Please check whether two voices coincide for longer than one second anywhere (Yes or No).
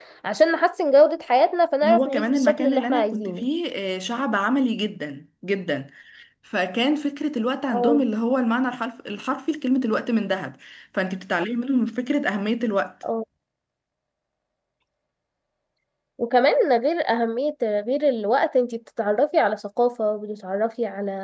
Yes